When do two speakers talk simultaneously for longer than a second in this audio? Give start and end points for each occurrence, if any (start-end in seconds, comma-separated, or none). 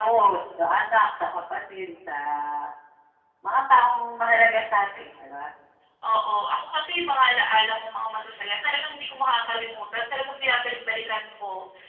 none